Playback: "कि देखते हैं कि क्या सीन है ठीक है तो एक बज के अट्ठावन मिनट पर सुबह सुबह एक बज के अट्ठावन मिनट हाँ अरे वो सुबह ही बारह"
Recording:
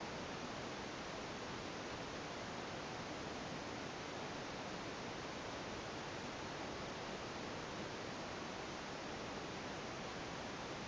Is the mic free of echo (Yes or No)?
Yes